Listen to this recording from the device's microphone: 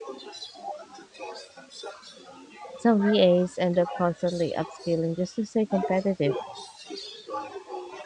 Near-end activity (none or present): present